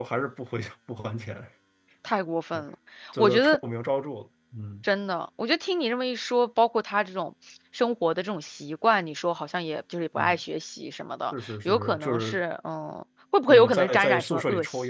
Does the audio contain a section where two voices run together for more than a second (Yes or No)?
Yes